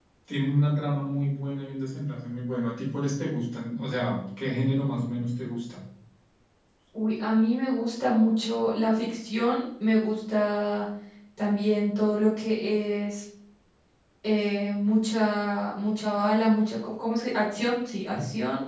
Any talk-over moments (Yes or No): No